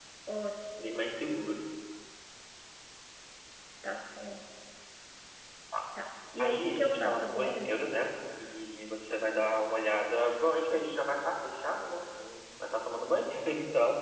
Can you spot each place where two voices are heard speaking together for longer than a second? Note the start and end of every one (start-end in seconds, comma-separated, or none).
6.4-7.7